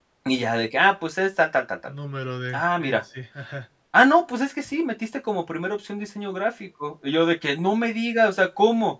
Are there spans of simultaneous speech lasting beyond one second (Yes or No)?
No